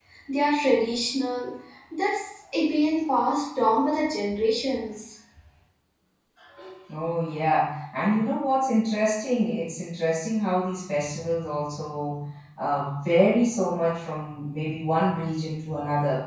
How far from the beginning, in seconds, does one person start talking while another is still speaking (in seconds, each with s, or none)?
none